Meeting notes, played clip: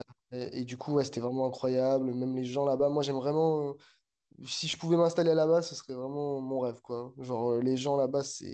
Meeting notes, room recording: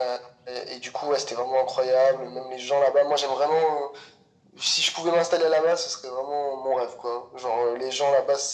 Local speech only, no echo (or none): none